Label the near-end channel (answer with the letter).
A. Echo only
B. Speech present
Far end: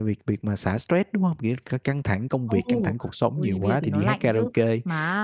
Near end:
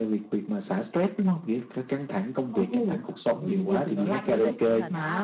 B